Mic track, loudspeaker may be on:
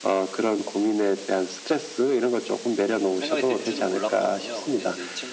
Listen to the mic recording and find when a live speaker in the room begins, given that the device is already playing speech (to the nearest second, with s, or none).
3 s